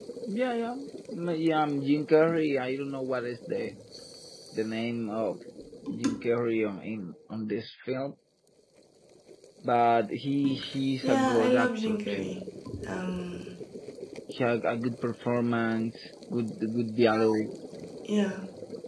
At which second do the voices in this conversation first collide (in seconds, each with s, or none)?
11.0 s